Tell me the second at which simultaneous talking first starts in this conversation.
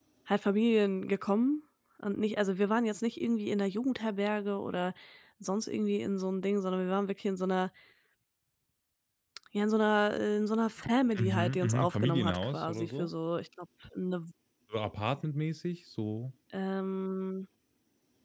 11 s

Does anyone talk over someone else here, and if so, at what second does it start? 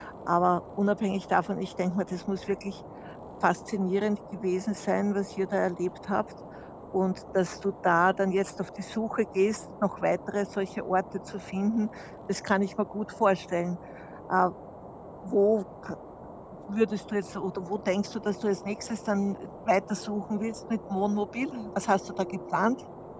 none

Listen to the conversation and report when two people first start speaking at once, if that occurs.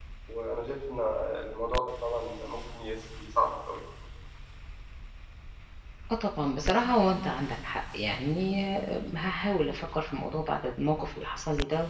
none

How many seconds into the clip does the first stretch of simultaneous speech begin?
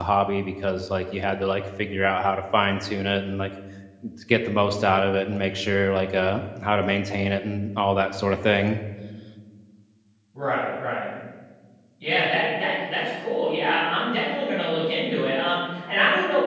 none

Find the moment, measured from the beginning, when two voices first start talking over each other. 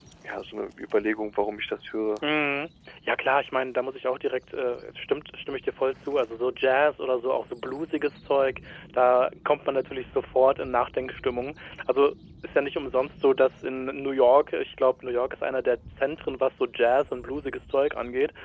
none

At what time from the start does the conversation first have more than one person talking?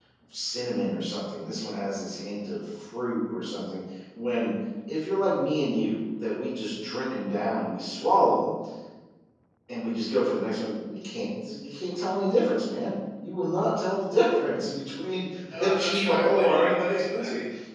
16 s

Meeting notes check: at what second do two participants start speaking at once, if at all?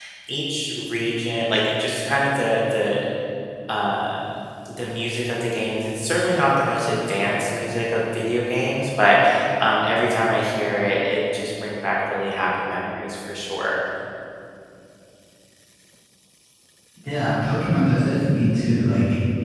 none

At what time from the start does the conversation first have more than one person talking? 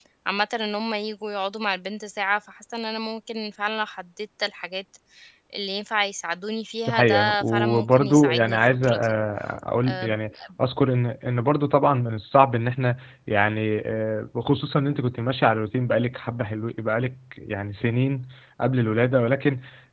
7 s

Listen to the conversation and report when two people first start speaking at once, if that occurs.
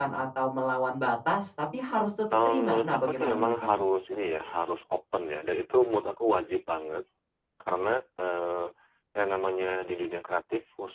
2 s

